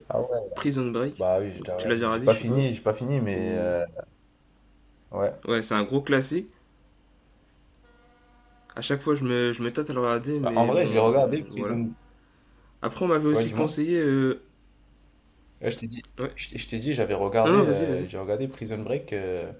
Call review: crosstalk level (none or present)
present